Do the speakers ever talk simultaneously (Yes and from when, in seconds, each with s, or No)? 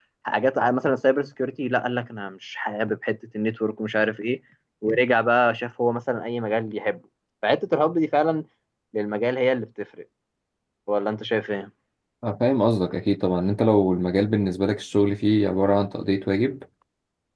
No